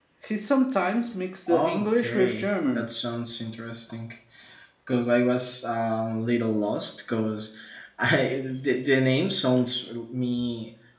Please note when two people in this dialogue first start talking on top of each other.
1.5 s

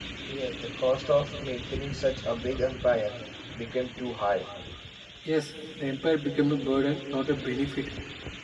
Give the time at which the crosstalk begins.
none

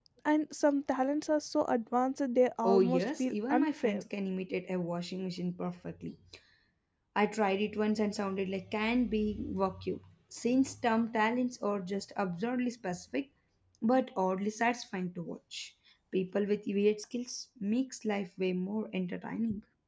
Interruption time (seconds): 2.6 s

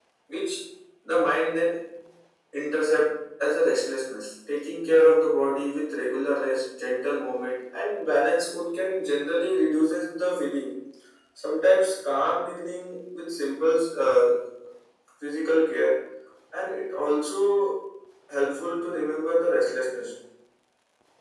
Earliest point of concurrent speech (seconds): none

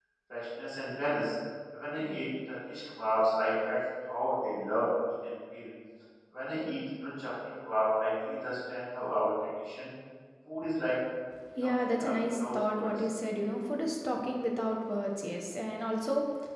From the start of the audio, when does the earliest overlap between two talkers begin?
11.6 s

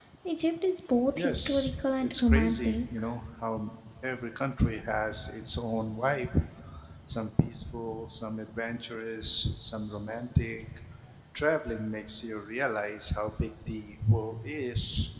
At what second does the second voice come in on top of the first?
1.1 s

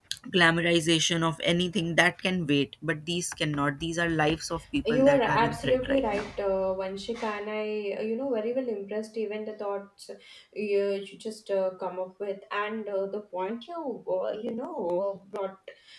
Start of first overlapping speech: 4.8 s

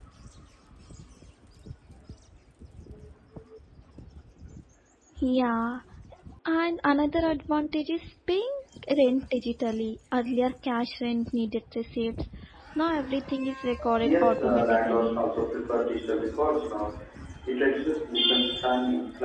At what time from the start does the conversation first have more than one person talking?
14.0 s

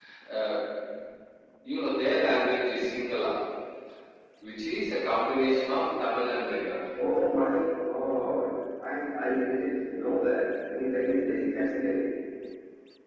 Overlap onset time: none

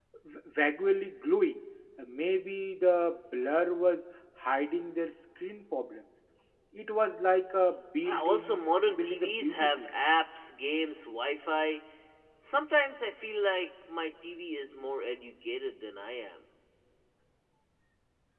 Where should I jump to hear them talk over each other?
8.0 s

